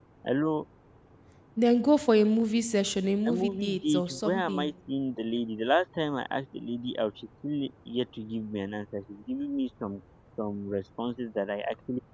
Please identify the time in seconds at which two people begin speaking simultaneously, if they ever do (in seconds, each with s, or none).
3.2 s